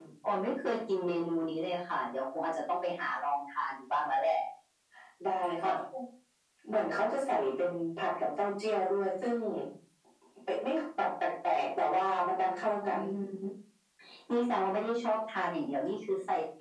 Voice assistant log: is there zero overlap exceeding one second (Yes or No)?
Yes